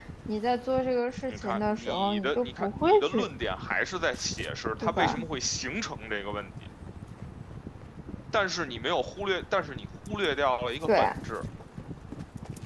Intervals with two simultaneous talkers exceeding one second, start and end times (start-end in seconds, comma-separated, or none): 1.3-3.3